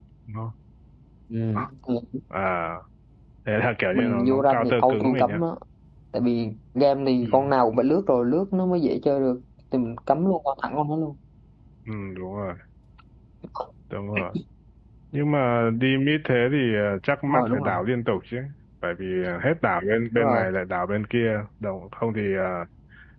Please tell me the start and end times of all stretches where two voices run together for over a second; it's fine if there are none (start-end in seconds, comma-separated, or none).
3.9-5.4